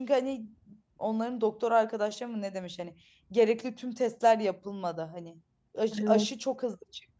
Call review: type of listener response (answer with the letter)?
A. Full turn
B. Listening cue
B